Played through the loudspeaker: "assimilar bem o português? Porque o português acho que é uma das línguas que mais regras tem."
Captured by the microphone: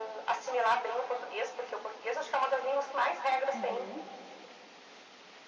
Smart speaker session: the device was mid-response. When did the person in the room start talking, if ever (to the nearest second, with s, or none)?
4 s